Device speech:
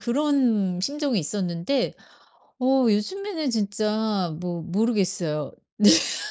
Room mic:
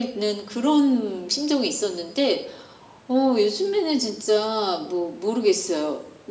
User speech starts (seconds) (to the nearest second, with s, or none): none